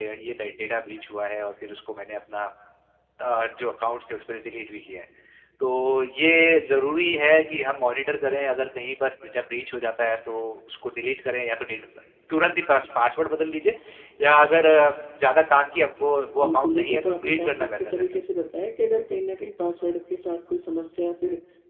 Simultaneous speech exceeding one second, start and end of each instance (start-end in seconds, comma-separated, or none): 16.4-18.0